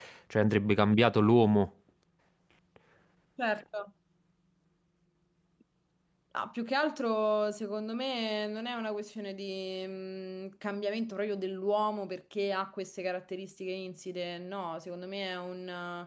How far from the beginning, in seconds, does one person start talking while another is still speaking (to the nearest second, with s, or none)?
none